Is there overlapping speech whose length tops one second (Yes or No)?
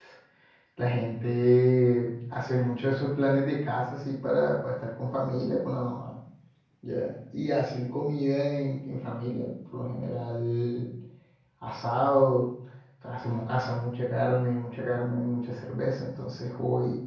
No